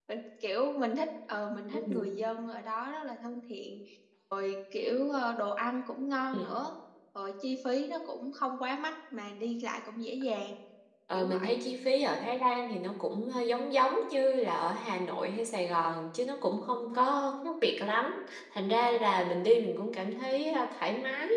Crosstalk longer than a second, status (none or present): none